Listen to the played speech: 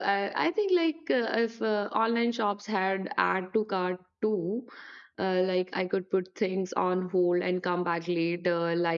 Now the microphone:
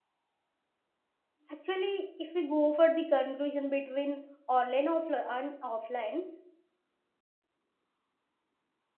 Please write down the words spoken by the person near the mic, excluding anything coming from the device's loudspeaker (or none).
actually if we go for the conclusion between online offli- and offline